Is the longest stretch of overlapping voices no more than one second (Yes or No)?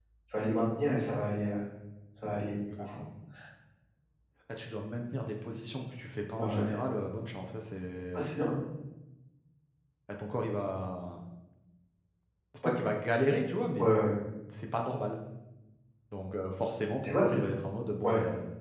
Yes